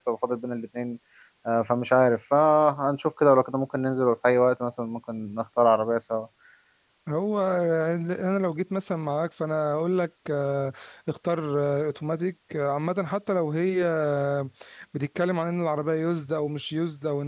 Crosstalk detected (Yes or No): No